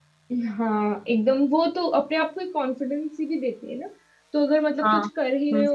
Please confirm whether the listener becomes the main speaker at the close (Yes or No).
No